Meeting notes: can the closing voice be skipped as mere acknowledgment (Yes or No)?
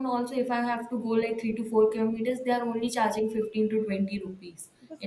Yes